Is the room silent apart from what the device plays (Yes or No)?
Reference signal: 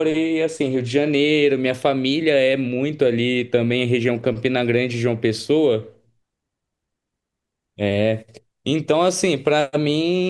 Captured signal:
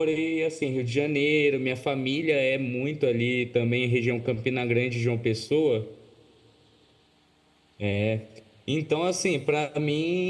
Yes